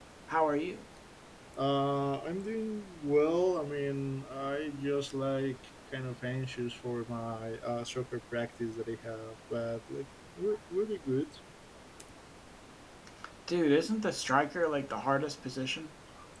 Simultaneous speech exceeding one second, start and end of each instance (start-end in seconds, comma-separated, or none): none